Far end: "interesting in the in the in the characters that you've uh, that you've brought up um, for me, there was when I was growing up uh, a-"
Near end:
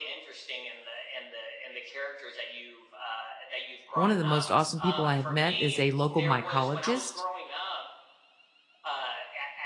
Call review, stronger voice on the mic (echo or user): user